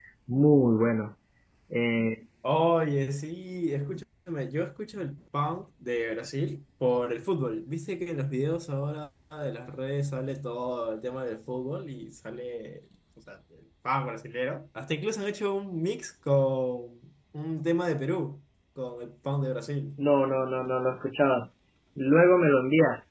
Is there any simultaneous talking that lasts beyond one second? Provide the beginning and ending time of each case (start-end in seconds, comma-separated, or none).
none